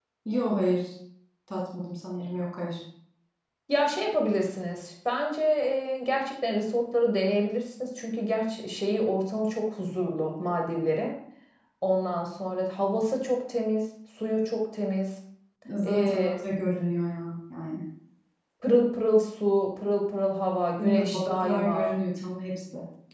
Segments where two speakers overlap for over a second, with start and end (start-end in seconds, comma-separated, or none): 20.8-22.0